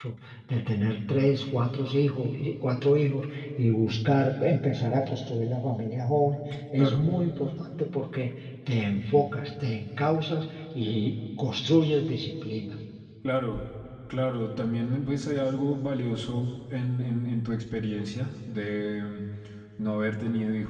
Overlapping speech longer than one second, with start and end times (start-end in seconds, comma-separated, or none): none